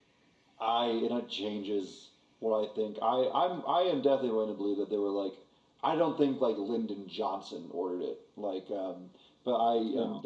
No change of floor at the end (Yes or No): Yes